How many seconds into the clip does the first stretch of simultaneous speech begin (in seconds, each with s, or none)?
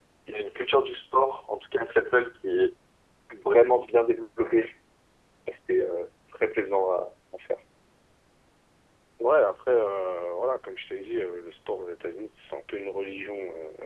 none